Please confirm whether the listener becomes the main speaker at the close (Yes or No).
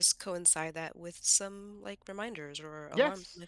Yes